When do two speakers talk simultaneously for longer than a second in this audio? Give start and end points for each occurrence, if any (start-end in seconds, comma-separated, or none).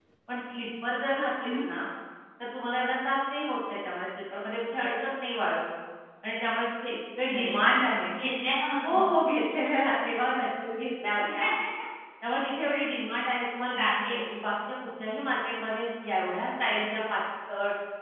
none